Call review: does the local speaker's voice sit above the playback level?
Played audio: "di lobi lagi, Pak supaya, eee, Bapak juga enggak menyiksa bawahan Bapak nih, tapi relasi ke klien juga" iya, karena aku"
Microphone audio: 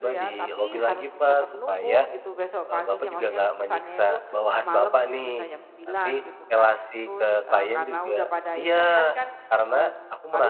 No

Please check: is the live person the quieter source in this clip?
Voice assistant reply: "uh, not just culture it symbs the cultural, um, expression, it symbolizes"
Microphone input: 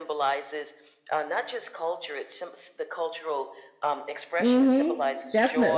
No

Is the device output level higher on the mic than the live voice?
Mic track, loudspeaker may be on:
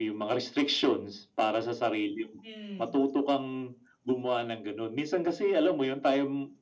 Yes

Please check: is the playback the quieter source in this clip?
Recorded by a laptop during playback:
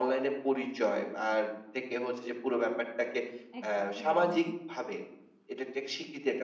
No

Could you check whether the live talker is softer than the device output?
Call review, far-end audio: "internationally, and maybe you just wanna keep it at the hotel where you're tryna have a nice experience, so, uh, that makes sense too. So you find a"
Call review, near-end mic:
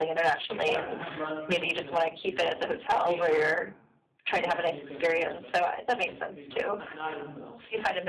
Yes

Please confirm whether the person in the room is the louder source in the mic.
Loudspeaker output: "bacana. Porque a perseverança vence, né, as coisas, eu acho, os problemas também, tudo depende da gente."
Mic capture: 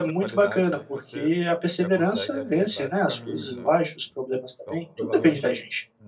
No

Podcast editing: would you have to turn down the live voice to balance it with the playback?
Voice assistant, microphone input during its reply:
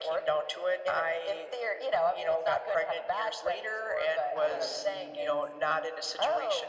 No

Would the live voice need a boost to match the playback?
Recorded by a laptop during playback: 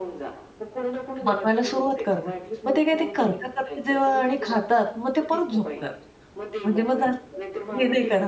No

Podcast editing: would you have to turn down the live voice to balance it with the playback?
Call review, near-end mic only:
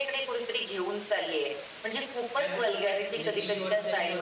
No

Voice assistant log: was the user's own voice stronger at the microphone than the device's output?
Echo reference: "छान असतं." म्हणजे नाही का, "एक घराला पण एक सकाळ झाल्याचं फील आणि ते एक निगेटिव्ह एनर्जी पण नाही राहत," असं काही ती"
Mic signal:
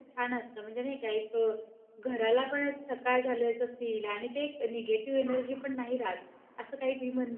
No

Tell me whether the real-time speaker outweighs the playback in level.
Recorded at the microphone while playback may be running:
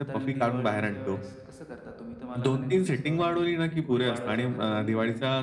No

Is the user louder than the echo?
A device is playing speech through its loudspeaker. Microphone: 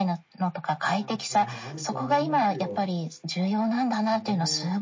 No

